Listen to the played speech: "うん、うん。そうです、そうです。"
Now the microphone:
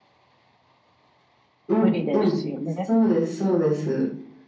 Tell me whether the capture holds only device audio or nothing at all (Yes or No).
No